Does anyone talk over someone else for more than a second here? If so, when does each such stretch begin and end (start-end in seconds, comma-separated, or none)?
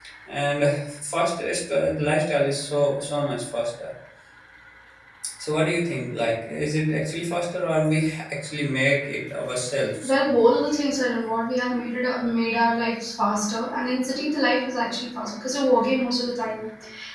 none